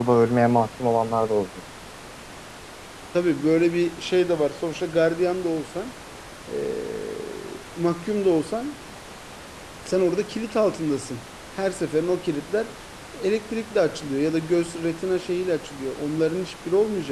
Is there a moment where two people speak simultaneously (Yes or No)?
No